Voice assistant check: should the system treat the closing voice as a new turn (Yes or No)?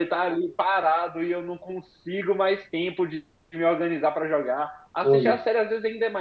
No